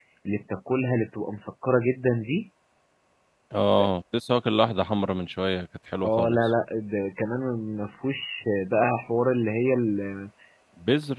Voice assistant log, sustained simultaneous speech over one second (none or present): none